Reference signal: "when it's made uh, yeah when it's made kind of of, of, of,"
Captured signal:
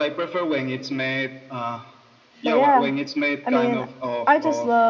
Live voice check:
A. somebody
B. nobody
A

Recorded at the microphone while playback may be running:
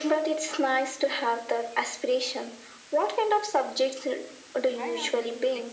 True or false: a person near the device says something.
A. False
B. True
B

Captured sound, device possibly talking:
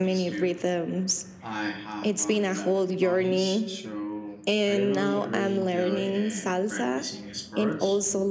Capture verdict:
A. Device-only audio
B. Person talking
B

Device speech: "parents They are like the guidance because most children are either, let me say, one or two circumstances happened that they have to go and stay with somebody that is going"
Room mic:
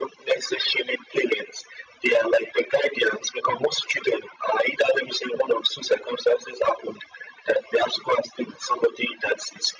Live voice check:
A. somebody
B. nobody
B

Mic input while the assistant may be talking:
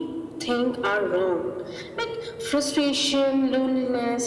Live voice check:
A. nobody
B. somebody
A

